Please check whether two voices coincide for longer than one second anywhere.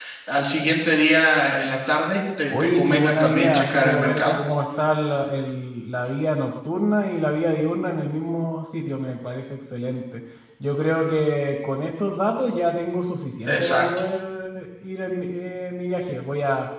Yes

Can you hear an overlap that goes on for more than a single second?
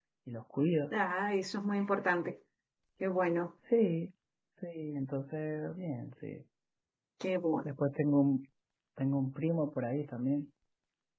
No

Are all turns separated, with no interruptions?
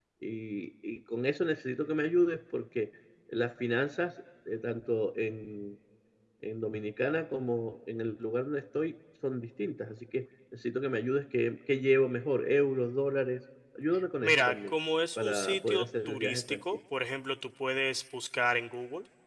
No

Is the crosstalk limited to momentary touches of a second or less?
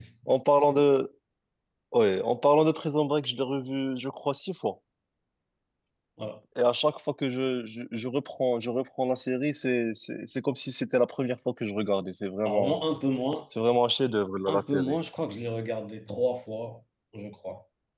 Yes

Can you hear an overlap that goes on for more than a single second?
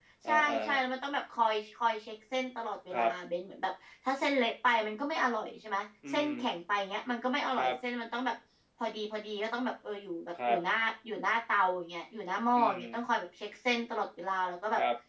No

